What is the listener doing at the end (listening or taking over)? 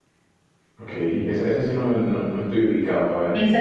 taking over